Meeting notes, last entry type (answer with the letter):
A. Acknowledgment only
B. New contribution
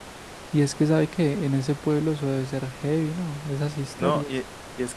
B